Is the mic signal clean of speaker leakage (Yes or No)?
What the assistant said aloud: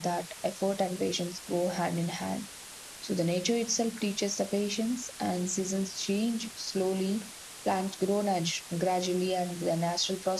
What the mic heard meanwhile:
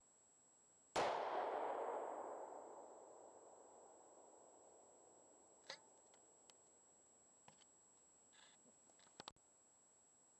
Yes